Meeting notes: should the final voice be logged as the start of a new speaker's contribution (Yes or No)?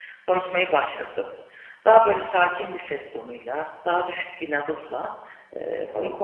No